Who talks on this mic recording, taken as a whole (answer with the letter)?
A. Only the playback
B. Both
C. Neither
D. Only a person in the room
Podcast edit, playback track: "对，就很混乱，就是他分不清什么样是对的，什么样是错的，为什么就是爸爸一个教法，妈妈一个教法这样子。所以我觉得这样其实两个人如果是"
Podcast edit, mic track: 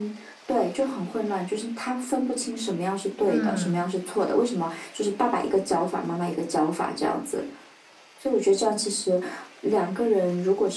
B